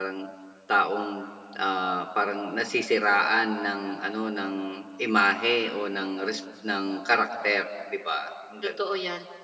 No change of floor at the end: No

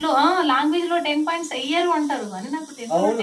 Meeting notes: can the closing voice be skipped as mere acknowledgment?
No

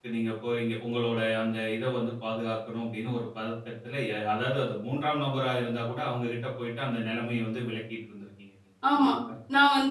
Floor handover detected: Yes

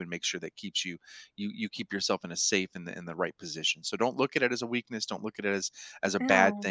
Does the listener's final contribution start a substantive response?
No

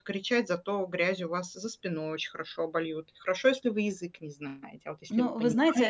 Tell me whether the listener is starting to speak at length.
Yes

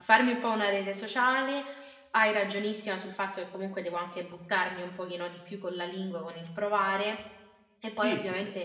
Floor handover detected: No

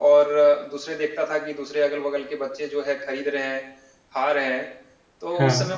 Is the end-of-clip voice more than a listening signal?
No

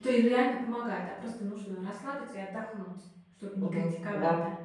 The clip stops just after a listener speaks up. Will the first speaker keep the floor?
No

